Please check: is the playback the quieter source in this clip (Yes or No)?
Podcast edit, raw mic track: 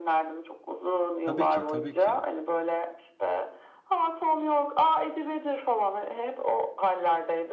No